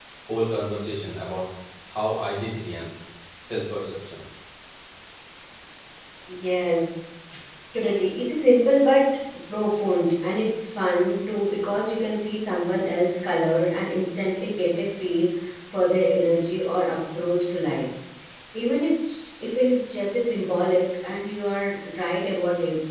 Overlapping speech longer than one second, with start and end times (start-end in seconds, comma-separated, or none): none